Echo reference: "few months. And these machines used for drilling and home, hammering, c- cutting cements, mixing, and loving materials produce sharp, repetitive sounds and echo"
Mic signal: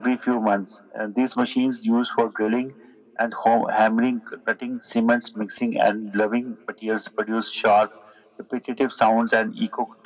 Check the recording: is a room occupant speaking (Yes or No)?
No